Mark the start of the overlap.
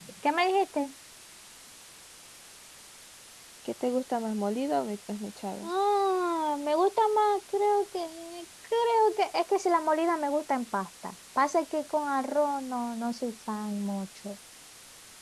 none

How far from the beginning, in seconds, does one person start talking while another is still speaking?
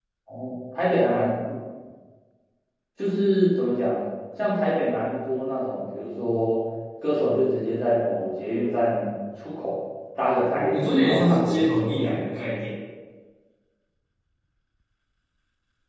10.5 s

